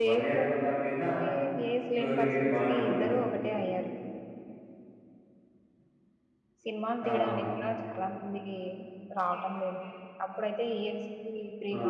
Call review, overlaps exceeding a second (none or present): present